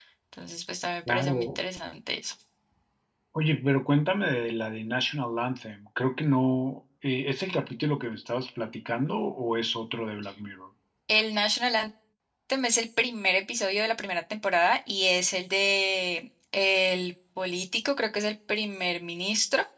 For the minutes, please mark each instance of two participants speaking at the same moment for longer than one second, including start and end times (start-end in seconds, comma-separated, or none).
none